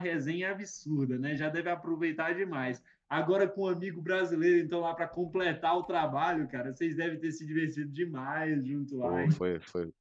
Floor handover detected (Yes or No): Yes